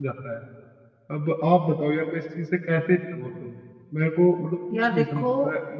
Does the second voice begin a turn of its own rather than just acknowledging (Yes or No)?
No